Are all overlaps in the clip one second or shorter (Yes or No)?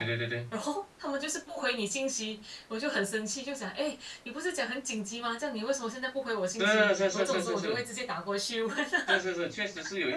No